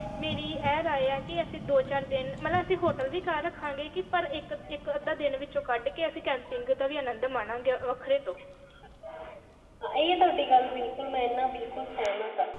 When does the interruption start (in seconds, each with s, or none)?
none